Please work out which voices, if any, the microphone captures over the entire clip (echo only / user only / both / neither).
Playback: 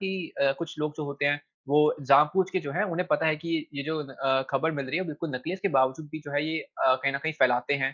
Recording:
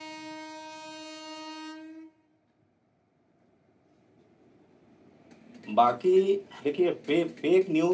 user only